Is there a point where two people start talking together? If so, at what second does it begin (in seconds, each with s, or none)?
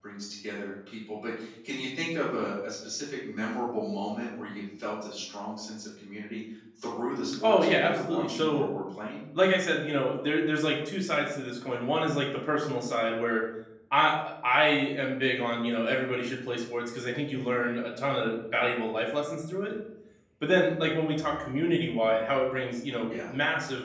7.4 s